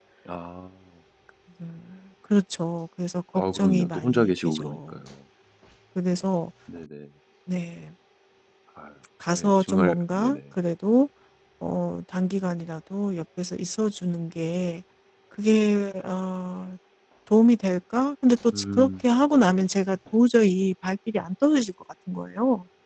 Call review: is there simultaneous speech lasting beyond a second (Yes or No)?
Yes